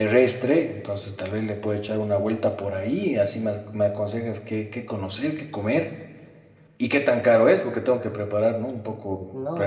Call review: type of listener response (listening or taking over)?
taking over